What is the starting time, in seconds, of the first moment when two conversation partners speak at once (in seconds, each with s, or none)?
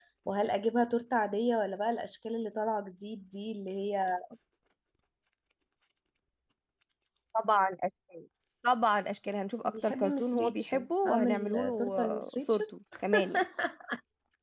9.7 s